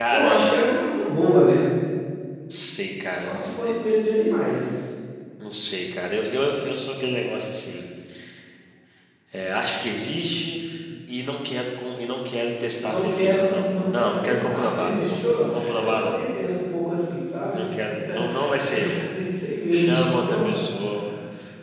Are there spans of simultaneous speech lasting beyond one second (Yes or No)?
Yes